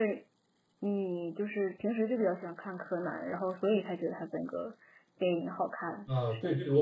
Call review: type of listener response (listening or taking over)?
taking over